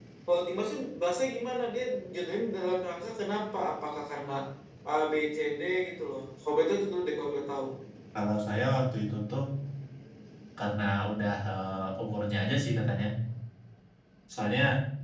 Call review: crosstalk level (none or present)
none